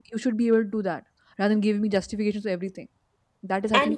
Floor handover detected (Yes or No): Yes